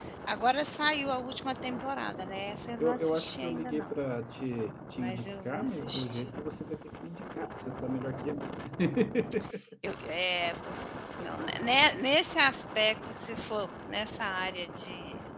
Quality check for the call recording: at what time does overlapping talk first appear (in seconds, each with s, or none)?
2.8 s